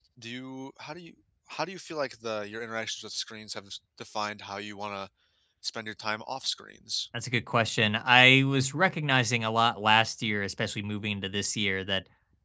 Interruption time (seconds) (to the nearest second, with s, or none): none